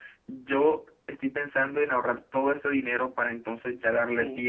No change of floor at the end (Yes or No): No